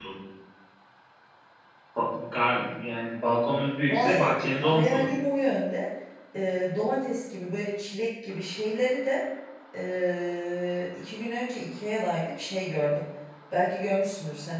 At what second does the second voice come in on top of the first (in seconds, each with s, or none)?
3.9 s